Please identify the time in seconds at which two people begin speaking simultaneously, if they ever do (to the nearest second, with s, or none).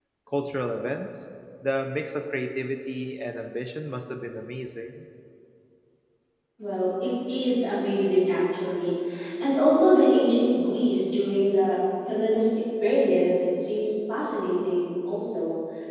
none